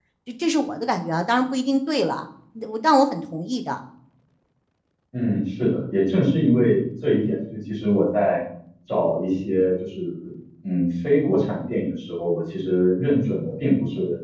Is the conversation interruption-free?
Yes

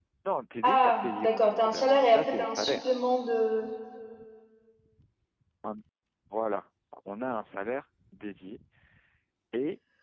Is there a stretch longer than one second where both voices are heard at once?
Yes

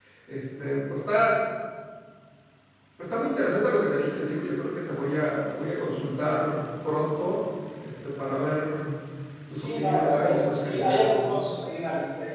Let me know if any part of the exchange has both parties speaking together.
Yes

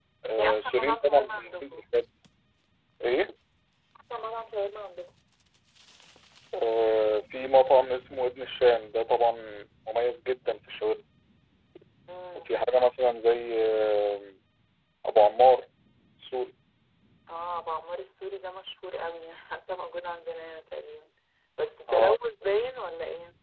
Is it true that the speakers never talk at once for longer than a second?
No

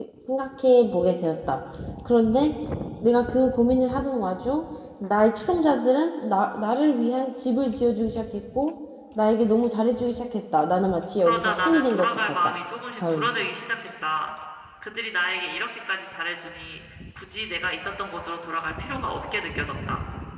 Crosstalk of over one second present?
Yes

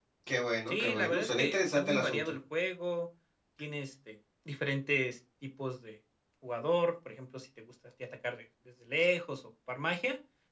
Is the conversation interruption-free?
No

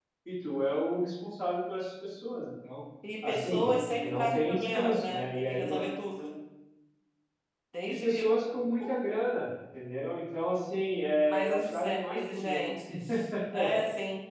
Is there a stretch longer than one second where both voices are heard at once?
Yes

